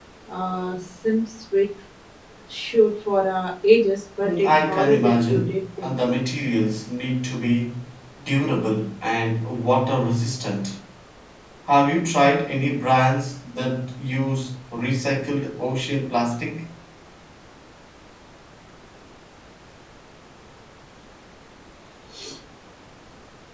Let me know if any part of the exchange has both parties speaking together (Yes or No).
Yes